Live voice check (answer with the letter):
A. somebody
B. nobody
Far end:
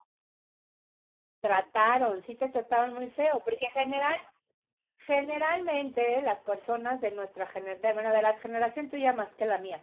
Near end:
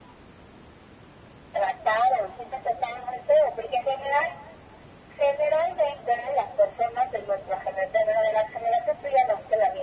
B